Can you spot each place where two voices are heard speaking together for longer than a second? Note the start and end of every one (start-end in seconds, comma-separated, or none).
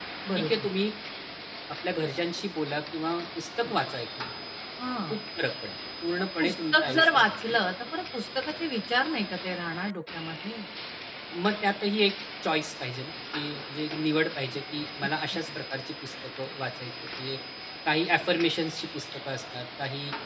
6.2-7.6